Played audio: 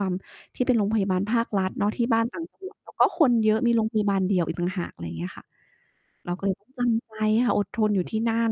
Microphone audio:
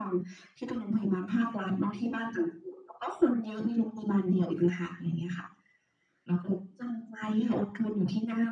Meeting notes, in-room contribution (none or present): none